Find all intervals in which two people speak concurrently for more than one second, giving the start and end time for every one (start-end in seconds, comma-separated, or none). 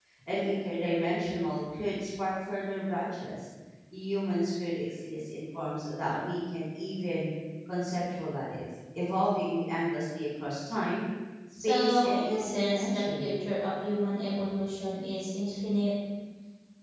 11.6-13.3